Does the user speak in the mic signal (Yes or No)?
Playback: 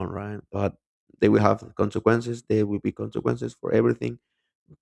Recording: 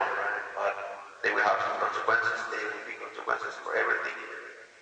No